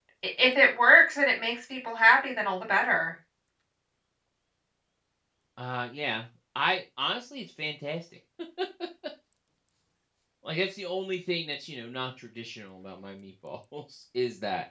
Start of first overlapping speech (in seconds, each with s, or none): none